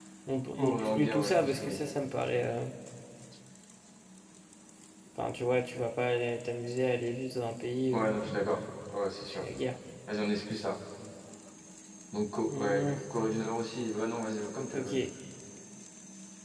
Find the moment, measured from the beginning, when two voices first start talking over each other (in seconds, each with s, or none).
0.6 s